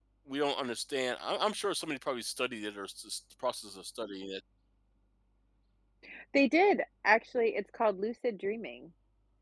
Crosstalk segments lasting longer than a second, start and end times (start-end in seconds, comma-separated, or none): none